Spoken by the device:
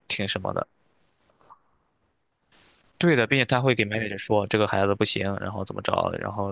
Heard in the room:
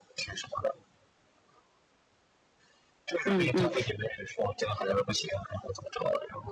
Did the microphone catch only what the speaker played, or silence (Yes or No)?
No